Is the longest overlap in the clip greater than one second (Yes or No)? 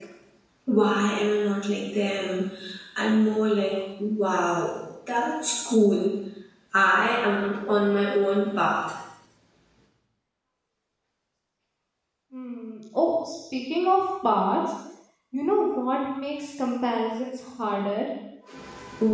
No